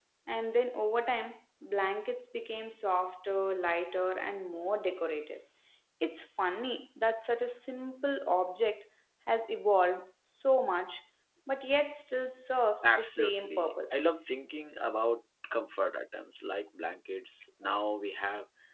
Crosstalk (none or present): present